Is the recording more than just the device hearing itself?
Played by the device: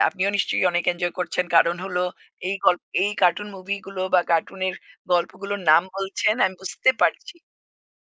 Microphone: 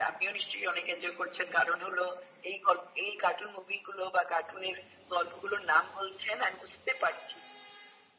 No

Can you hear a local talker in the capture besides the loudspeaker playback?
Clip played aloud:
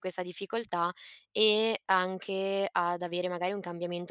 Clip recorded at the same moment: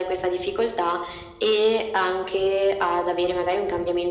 No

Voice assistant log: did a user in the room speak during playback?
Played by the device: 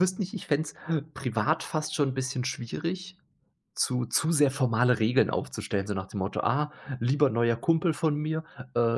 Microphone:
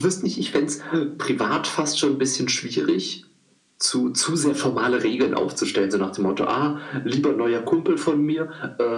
No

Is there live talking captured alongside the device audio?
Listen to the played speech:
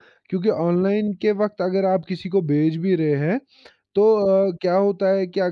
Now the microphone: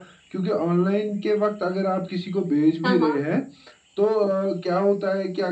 Yes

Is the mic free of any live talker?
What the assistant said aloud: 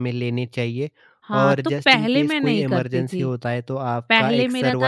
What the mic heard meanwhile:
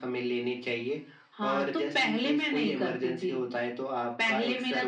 Yes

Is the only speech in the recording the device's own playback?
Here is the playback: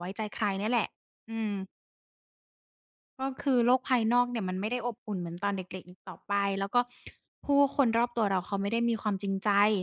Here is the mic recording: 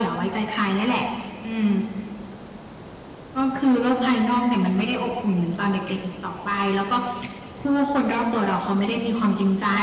Yes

